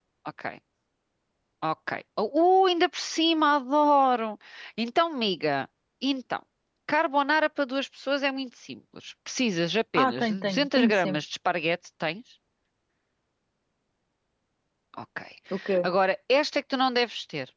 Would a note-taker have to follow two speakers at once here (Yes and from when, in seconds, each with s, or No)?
Yes, from 9.9 s